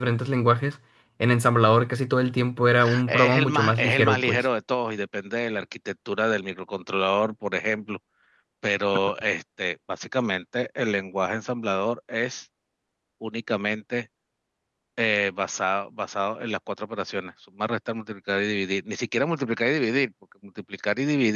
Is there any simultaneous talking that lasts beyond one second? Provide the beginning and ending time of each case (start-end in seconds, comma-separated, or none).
3.1-4.4